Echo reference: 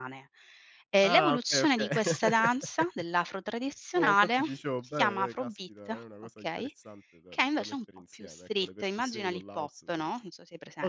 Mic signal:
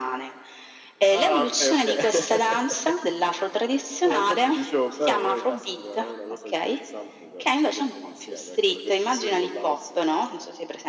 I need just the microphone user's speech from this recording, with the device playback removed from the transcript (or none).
none